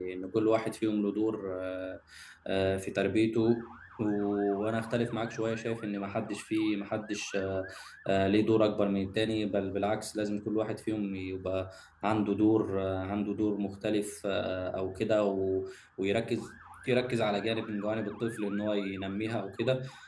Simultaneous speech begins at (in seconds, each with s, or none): none